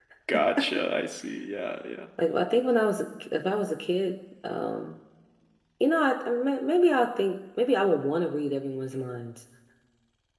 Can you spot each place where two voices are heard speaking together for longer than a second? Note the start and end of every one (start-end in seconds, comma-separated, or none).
none